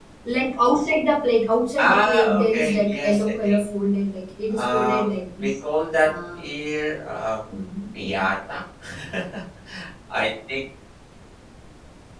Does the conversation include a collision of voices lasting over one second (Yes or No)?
Yes